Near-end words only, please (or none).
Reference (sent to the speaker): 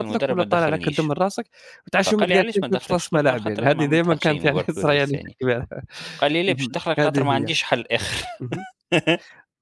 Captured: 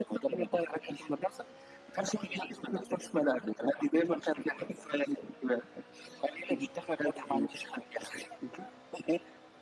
none